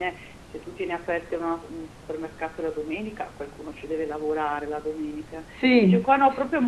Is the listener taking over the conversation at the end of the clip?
No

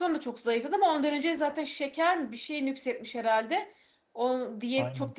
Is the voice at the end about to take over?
No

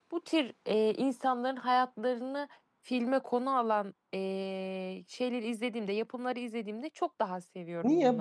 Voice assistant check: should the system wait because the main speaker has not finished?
No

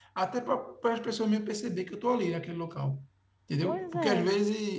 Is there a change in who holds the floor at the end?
No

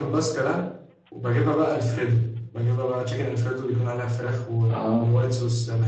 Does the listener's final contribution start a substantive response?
No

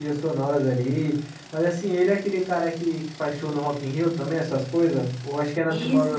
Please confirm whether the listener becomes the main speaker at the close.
Yes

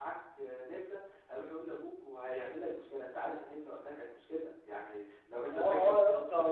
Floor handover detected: Yes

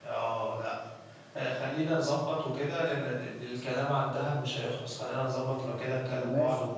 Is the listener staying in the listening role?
Yes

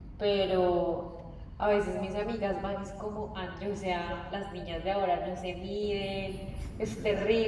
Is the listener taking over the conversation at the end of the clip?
No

